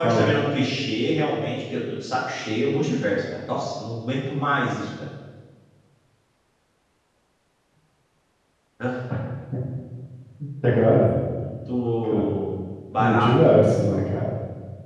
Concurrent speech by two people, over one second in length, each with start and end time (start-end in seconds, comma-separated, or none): 13.0-14.2